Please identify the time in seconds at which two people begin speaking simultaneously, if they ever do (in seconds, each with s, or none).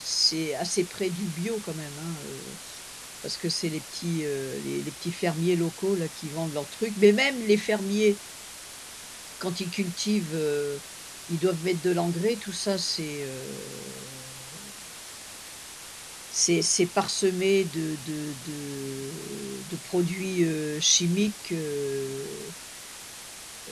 none